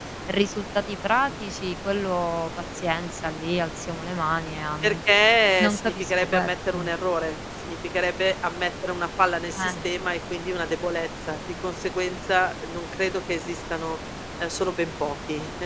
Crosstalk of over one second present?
Yes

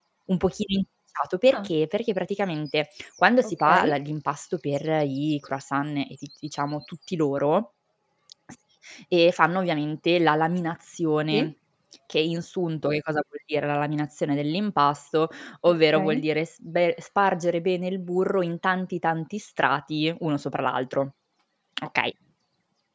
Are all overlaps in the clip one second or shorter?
Yes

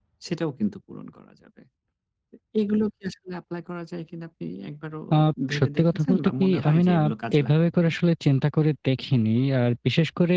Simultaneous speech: Yes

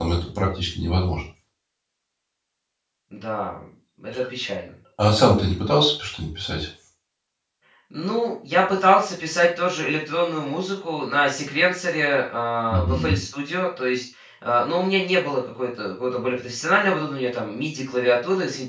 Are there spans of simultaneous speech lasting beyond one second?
No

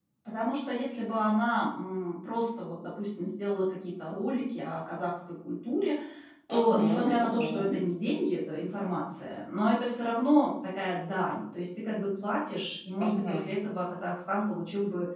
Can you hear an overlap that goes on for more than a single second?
Yes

